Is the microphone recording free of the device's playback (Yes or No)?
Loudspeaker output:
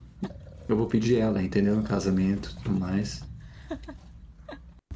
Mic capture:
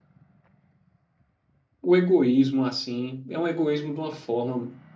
Yes